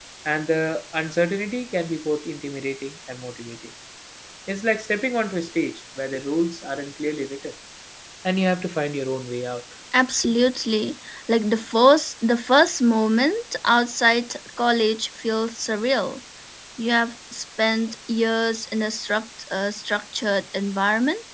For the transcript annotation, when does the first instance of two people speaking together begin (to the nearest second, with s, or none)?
none